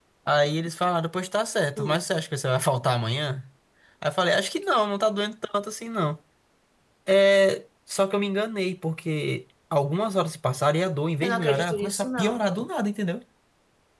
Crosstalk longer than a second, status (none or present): present